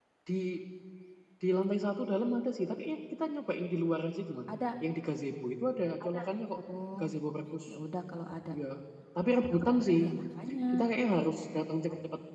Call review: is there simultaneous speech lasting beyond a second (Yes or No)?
No